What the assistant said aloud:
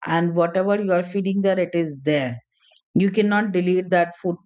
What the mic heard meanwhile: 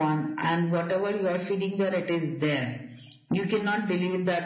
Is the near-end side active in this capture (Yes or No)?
No